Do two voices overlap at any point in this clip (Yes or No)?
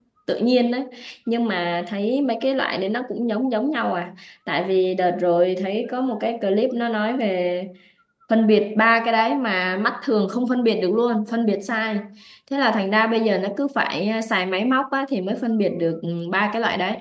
No